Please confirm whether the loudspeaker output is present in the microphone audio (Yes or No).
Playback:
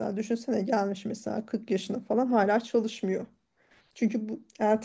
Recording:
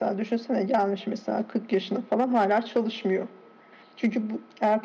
Yes